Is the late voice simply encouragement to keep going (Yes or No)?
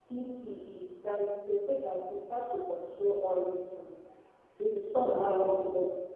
Yes